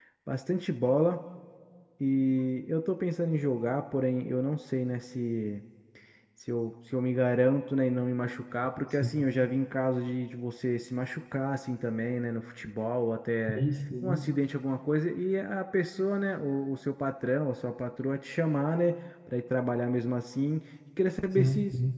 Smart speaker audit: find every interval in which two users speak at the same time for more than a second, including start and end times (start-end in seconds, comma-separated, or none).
none